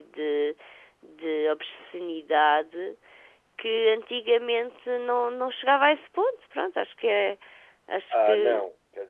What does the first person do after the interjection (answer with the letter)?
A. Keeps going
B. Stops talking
B